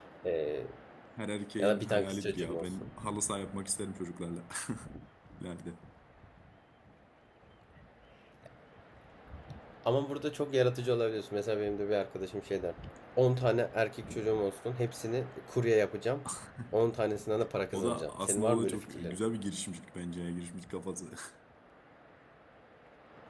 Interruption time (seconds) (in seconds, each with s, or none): 1.6 s